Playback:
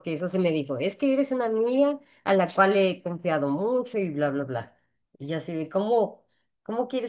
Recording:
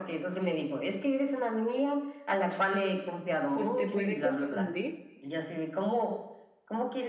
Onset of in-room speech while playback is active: 3.5 s

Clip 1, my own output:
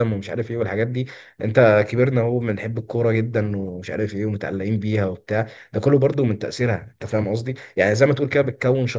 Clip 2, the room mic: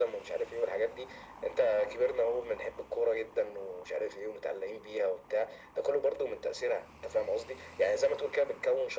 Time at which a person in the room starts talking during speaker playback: none

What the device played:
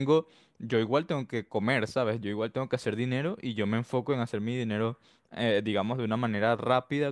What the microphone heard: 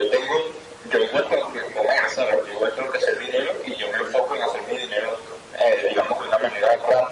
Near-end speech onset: none

